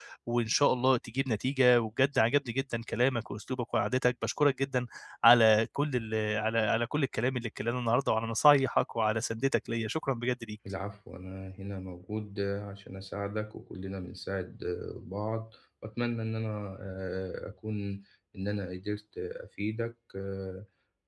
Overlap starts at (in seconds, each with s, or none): none